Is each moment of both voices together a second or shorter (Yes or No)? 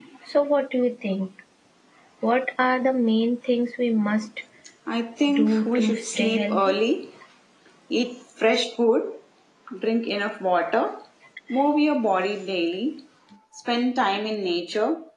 No